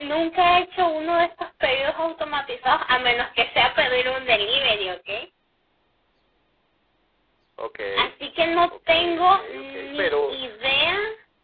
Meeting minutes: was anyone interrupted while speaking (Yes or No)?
Yes